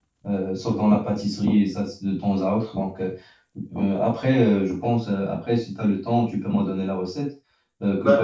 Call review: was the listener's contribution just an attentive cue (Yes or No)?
Yes